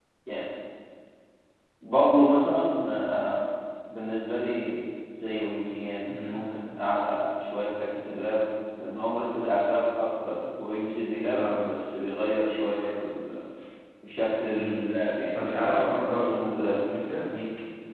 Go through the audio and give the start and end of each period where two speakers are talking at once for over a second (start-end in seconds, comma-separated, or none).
15.3-16.8